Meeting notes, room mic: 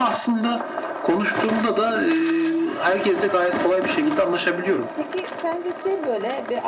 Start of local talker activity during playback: 4.6 s

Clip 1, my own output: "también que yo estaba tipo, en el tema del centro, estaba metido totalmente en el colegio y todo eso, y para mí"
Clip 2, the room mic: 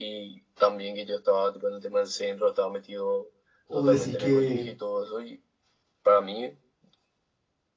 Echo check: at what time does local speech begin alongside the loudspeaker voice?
3.6 s

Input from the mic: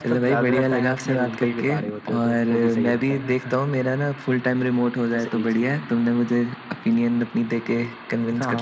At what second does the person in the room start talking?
none

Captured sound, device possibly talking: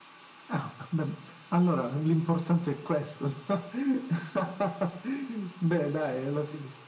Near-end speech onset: none

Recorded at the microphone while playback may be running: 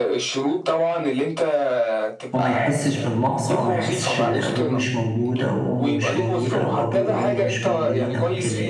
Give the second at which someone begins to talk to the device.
2.3 s

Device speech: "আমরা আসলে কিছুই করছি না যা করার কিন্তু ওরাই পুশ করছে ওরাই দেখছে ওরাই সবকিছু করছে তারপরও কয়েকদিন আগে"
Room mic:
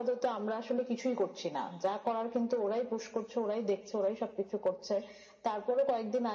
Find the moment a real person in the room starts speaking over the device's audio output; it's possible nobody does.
none

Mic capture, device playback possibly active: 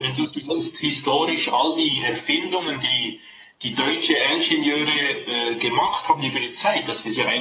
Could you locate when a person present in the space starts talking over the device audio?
none

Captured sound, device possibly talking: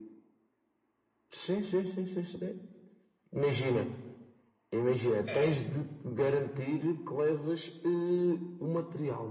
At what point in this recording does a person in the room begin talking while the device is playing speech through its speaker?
5.2 s

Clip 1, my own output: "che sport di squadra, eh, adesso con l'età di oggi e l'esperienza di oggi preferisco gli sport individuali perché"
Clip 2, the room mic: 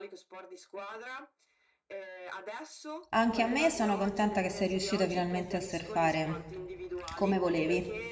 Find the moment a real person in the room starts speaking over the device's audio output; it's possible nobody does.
3.1 s

